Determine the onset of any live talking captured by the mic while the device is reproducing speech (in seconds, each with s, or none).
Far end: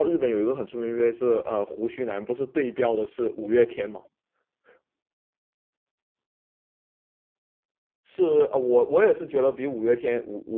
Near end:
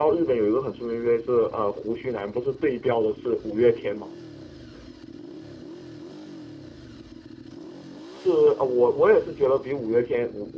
none